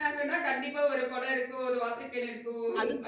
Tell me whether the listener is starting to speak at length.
No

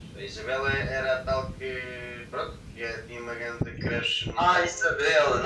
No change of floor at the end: No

